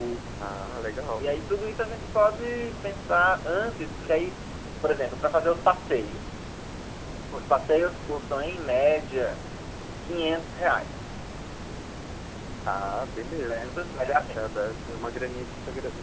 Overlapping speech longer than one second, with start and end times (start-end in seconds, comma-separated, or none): none